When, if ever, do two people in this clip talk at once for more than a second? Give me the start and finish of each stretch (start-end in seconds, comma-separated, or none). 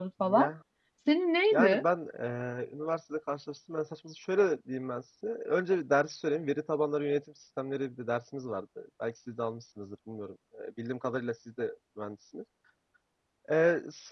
none